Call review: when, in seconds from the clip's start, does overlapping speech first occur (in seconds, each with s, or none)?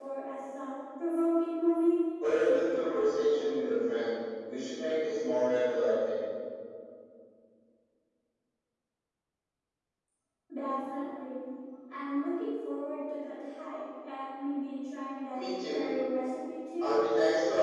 2.2 s